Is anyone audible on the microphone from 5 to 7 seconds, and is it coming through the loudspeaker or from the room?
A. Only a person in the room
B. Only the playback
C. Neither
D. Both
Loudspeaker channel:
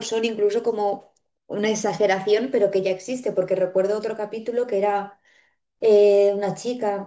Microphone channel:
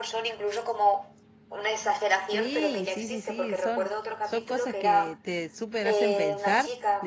D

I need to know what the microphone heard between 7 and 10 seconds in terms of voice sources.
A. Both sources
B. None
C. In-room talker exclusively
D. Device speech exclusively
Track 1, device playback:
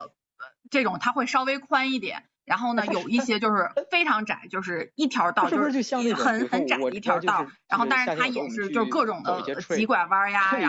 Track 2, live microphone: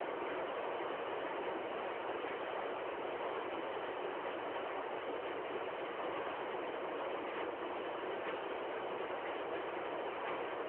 B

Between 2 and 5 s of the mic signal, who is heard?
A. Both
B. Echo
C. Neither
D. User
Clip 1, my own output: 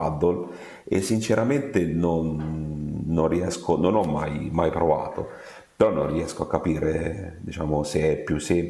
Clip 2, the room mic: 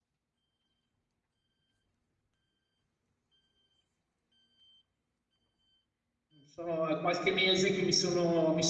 C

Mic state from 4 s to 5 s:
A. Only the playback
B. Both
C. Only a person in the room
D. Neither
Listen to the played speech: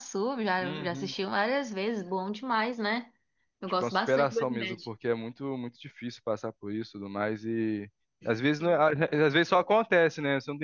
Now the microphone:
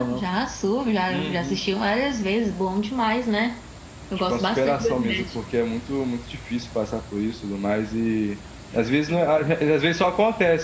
A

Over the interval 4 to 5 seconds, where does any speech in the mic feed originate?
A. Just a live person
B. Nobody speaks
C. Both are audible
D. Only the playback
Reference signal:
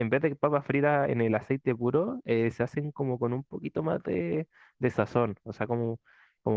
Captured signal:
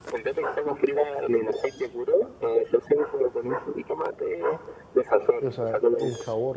D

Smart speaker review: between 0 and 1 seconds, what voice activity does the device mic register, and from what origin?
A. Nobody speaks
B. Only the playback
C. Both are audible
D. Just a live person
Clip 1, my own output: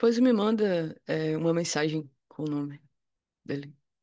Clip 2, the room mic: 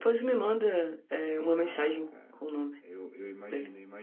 B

